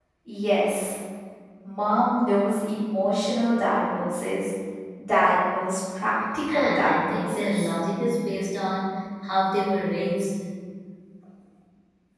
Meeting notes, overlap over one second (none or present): present